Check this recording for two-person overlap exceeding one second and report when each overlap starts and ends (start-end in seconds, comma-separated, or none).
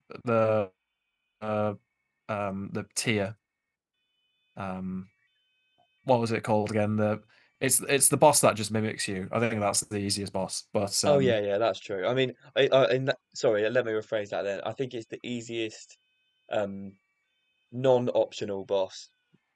none